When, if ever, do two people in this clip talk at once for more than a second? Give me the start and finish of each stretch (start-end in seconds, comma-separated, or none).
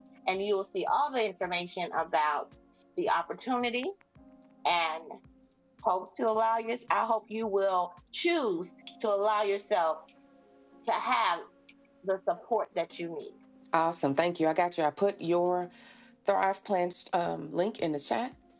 none